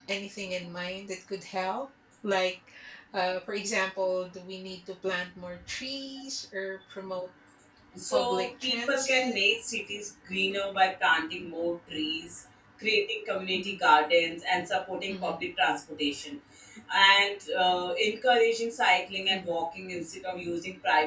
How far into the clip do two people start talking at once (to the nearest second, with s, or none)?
8 s